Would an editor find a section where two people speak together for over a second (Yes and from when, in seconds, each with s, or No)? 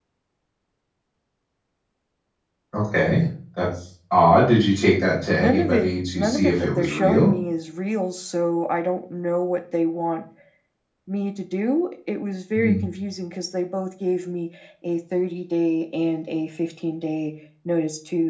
Yes, from 5.4 s